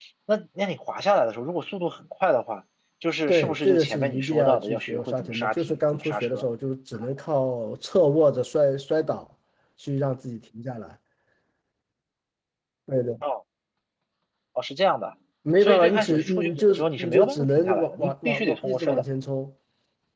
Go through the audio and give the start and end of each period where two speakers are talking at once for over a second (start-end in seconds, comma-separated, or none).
3.3-6.4, 15.6-19.0